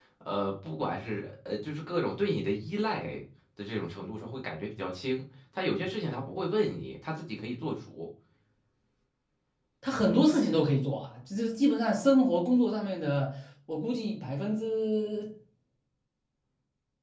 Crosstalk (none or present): none